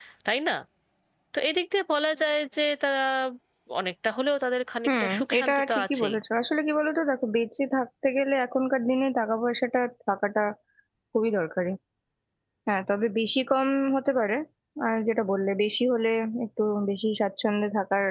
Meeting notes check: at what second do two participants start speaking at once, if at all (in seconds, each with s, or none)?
4.9 s